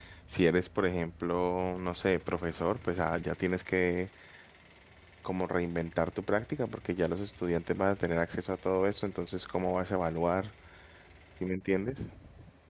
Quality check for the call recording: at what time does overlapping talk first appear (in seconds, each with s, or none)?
none